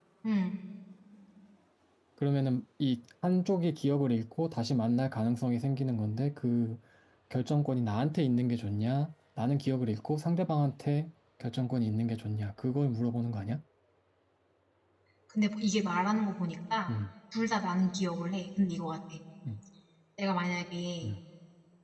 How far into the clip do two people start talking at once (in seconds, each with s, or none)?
none